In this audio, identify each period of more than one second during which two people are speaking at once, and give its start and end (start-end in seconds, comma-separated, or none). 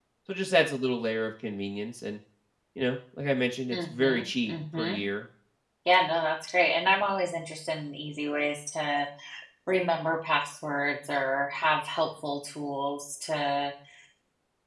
3.7-5.0